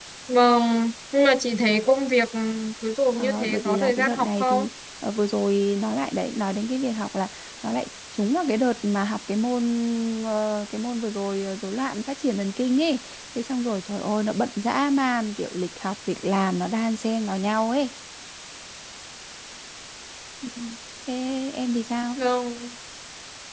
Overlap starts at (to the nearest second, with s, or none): 3 s